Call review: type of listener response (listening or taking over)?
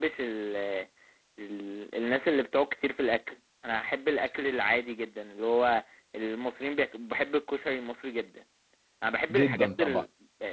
listening